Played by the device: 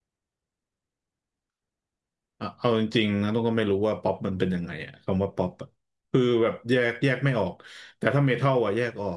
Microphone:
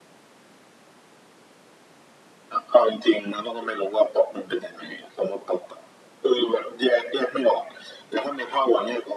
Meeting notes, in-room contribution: none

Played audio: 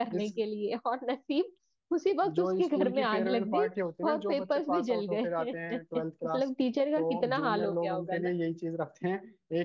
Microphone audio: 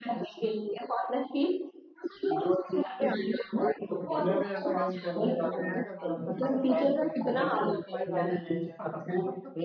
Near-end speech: present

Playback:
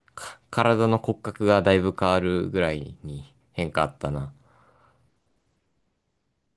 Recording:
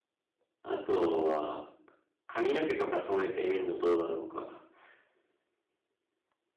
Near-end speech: present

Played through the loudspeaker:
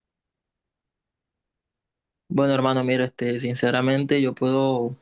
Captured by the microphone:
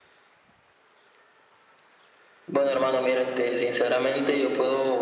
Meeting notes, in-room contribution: none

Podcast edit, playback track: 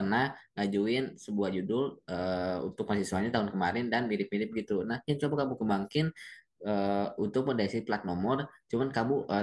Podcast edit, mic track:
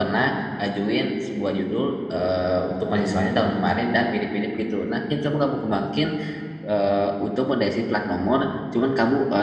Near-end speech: none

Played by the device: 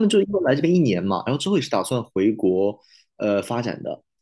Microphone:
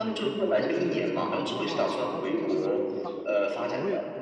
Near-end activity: present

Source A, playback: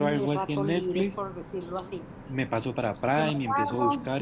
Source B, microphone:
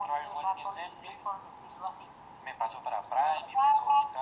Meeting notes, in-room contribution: none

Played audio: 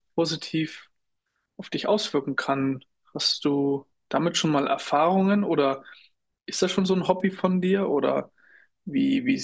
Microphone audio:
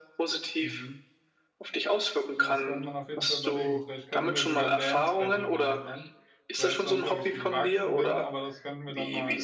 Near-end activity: present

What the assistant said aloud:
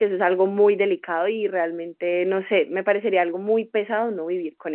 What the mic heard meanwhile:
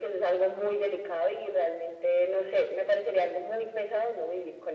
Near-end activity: none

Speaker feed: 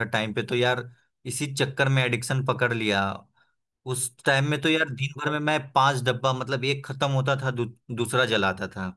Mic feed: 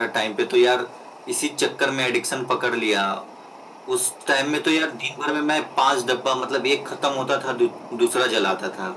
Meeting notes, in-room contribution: none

